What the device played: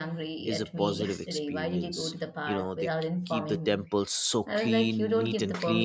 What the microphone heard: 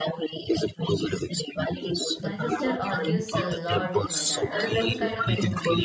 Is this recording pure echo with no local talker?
No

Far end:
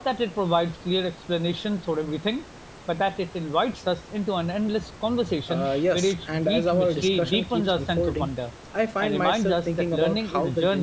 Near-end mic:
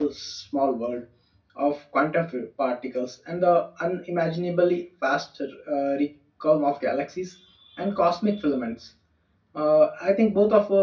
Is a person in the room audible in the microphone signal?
Yes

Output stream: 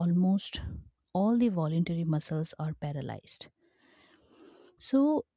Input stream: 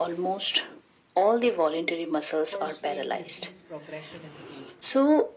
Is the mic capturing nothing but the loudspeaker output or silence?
No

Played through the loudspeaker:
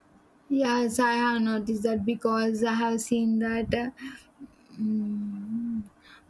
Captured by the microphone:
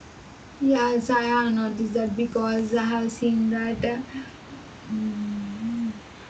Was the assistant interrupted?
No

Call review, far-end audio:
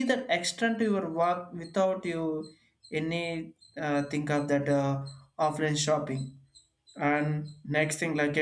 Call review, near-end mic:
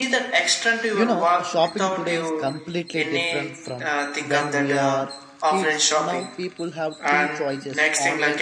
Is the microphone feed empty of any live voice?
No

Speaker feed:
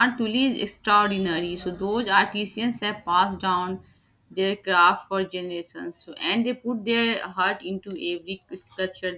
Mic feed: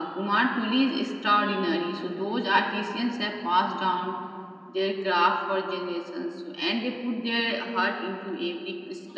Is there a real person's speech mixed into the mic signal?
No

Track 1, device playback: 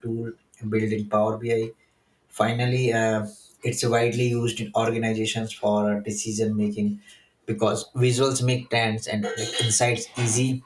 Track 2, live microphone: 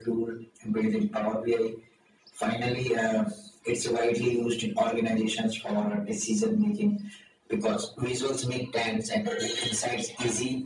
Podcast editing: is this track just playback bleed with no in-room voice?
Yes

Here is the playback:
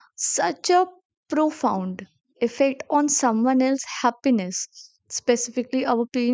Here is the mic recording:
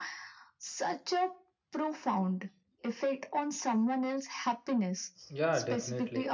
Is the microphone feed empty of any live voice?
No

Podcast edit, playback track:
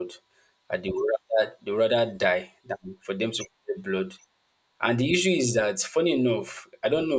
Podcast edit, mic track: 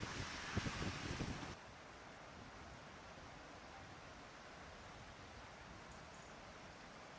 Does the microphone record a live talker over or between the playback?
No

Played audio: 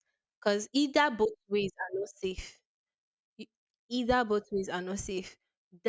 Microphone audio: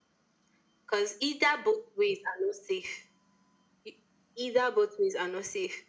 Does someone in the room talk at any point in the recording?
No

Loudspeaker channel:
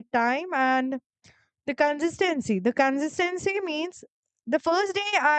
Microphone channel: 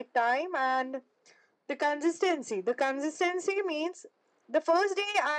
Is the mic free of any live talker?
Yes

